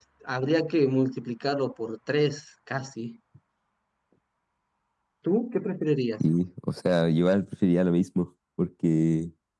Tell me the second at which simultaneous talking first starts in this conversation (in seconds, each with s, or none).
none